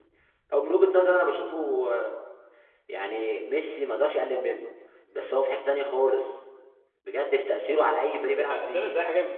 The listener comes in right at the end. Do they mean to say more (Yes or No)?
Yes